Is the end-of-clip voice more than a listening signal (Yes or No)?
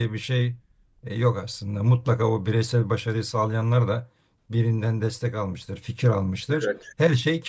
No